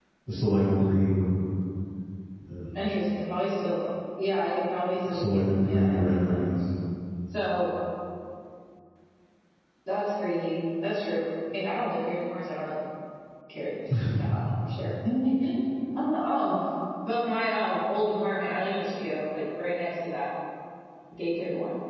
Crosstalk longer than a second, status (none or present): present